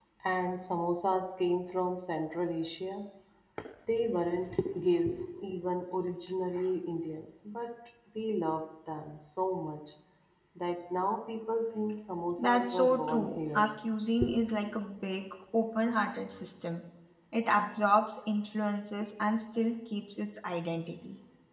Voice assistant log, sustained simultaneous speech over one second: present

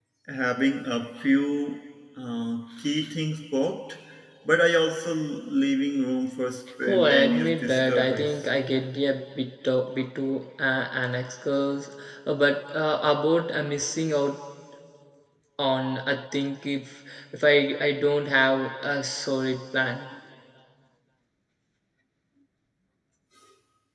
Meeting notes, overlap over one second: present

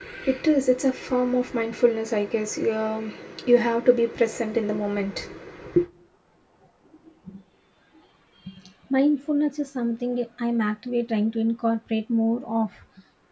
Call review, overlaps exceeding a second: none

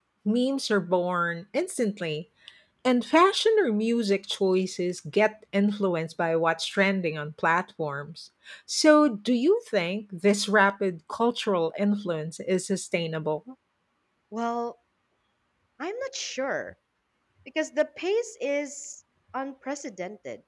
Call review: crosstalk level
none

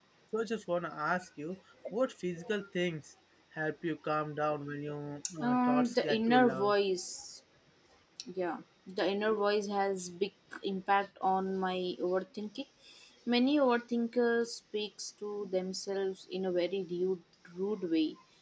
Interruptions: present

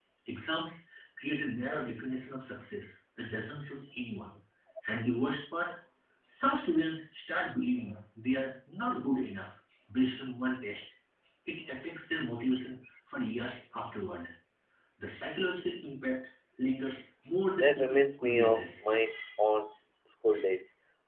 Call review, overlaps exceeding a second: present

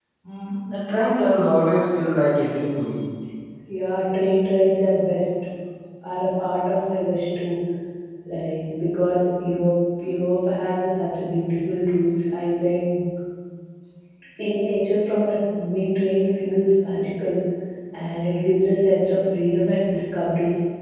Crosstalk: none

